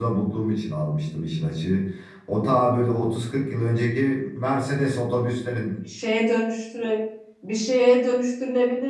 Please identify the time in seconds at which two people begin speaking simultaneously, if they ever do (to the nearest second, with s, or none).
none